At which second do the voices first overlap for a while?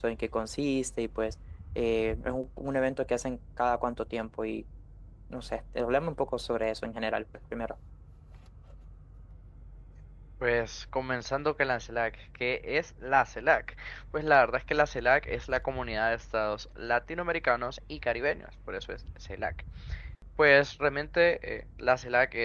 none

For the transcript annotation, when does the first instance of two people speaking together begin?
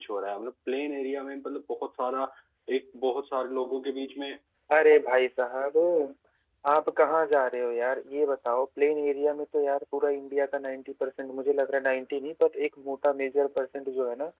none

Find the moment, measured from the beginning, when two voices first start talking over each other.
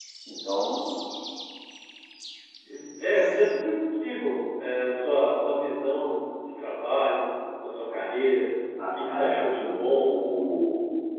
8.8 s

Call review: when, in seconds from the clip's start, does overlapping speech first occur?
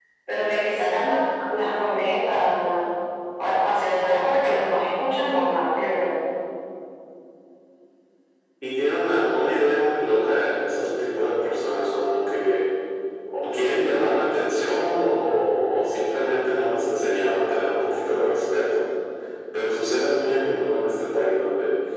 none

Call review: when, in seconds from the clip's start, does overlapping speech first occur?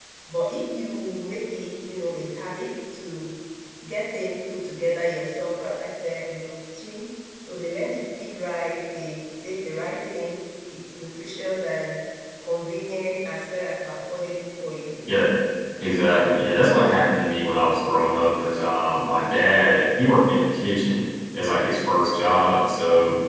none

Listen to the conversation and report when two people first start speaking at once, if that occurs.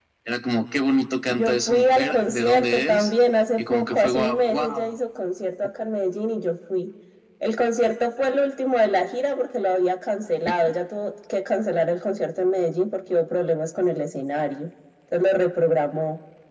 1.3 s

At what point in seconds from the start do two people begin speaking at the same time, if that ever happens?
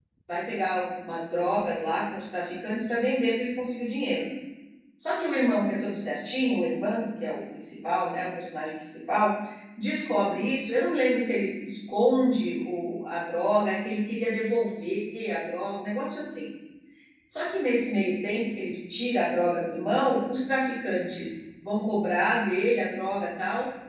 none

